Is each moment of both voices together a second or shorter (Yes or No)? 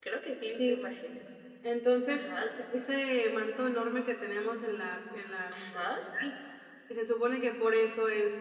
Yes